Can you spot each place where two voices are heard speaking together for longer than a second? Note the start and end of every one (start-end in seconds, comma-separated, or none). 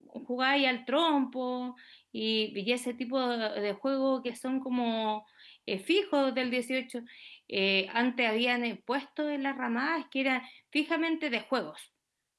none